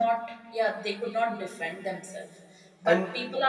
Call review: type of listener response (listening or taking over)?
listening